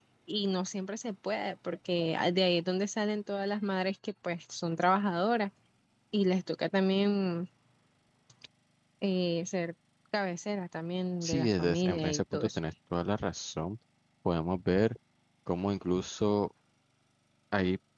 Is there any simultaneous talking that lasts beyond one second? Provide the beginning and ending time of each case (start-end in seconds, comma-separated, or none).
11.2-12.6